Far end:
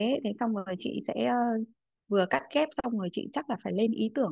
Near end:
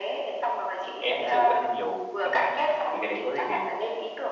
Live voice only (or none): em chưa quen nhiều các bạn ấy thì cái đấy có gì thì